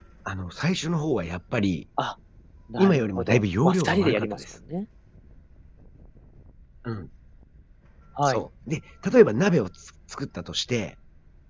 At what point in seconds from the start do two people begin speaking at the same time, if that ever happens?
3 s

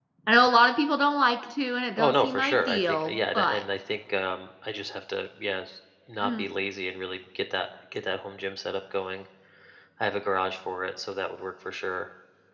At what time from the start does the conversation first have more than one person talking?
2 s

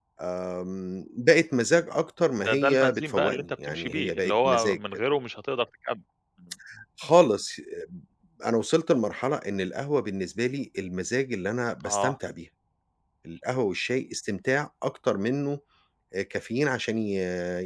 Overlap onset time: 2 s

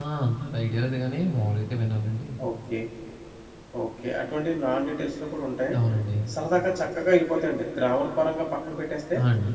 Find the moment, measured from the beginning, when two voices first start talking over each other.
none

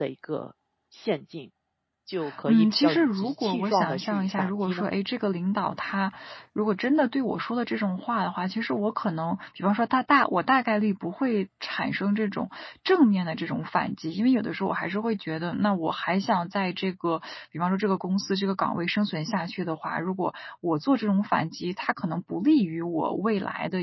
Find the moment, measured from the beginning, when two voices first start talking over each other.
2 s

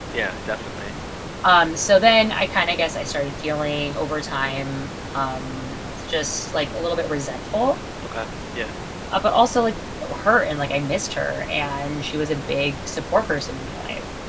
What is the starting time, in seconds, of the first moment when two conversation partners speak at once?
none

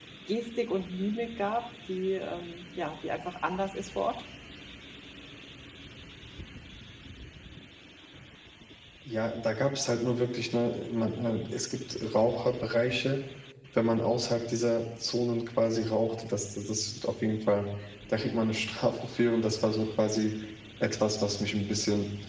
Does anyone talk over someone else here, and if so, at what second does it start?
none

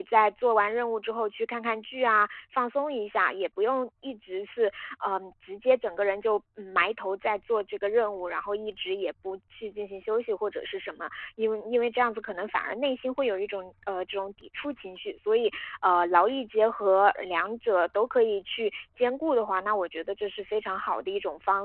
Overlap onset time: none

